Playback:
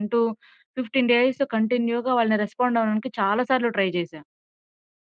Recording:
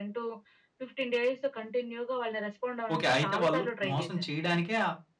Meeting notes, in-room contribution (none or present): present